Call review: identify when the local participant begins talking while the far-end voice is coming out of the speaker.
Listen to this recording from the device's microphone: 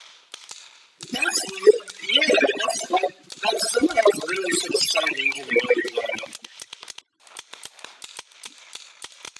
none

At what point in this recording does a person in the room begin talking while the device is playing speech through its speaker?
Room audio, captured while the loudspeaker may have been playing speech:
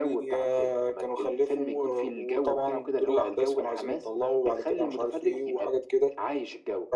none

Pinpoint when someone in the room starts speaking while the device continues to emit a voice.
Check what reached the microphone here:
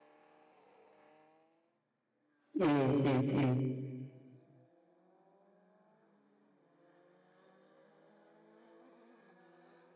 2.5 s

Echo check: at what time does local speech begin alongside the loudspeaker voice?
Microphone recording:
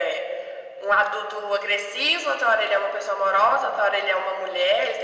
none

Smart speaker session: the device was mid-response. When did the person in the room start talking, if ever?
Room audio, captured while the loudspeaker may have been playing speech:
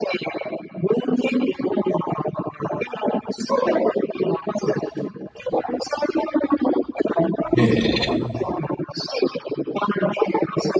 7.5 s

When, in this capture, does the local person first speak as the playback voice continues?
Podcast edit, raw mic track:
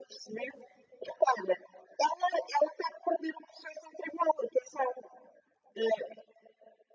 none

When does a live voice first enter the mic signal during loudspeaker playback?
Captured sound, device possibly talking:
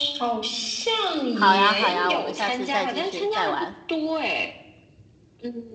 1.3 s

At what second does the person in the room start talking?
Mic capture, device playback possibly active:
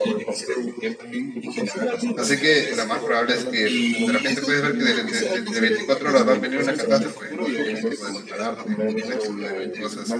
2.1 s

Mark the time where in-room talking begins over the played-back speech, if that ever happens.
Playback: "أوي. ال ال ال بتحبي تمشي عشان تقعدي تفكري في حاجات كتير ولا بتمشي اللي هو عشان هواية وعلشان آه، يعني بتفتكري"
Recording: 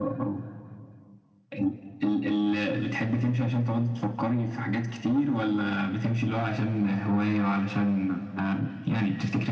none

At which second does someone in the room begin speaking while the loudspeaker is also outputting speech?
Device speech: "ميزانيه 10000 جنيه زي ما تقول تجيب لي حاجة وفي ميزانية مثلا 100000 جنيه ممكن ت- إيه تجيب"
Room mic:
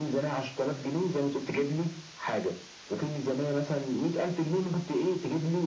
none

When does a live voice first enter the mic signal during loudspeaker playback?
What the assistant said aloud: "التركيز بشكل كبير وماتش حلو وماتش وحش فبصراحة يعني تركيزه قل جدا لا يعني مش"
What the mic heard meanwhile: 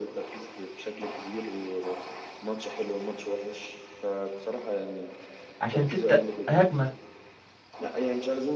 5.6 s

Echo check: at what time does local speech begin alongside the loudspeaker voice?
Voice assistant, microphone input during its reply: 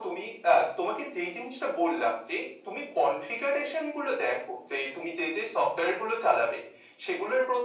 none

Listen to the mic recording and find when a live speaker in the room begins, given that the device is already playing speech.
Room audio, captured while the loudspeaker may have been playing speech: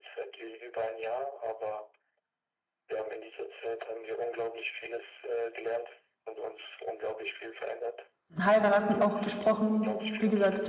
8.4 s

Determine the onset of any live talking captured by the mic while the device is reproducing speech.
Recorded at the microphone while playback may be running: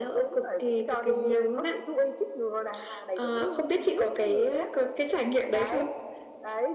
none

